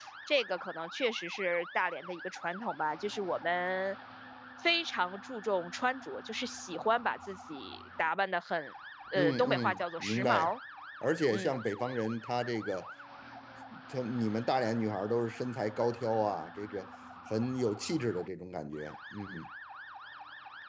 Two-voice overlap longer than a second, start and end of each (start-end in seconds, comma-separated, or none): 9.2-10.5